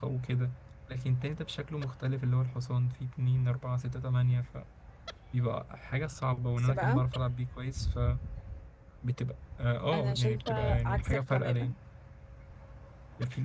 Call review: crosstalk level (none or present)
present